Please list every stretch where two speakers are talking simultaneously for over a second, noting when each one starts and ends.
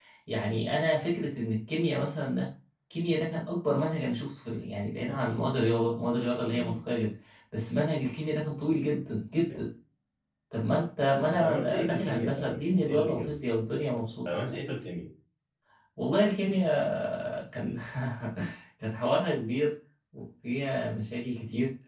11.3-13.4

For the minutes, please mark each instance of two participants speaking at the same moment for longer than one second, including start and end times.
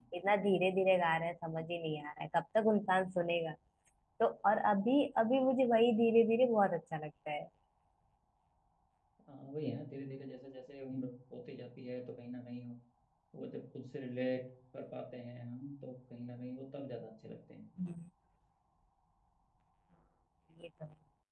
none

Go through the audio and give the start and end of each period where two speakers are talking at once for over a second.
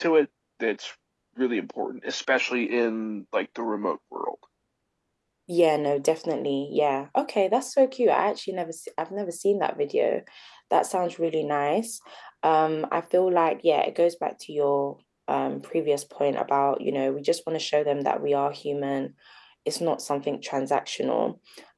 none

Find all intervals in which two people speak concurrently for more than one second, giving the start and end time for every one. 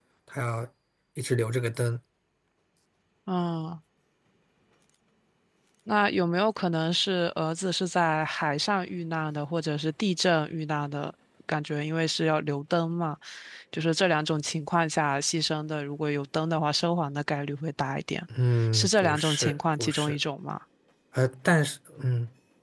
18.7-20.2

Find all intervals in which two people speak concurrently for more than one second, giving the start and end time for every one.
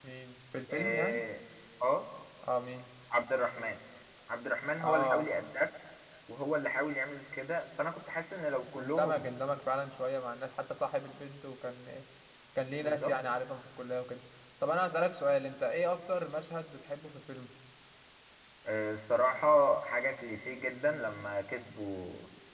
none

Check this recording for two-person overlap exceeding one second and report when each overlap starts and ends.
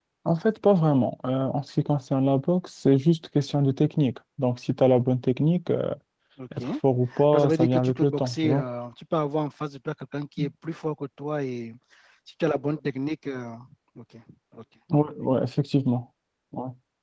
7.3-8.6

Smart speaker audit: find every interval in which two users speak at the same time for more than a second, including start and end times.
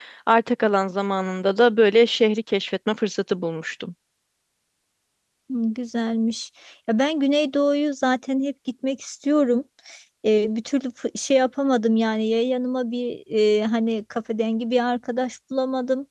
none

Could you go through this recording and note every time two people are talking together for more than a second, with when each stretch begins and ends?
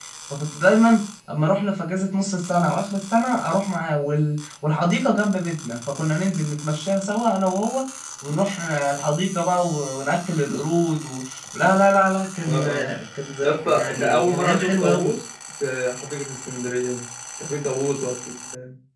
13.4-15.1

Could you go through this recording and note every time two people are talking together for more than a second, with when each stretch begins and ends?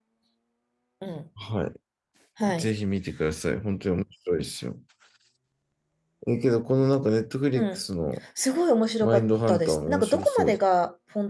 9.0-10.6

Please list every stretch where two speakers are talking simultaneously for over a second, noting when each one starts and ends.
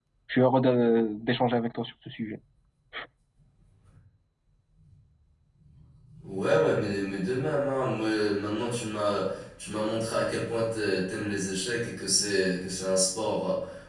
none

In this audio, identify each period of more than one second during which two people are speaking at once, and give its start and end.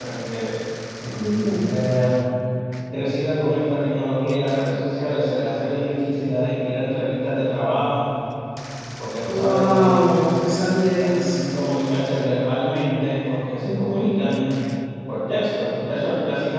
9.2-11.3

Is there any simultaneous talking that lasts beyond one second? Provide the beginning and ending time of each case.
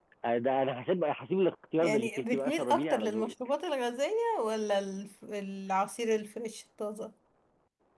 1.8-3.3

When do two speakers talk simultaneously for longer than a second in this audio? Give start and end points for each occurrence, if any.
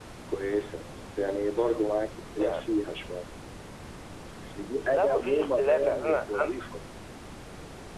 4.9-6.5

